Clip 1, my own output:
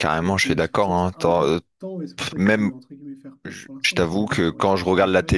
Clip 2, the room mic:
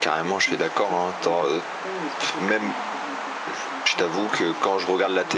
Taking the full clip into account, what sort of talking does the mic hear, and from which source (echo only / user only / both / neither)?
echo only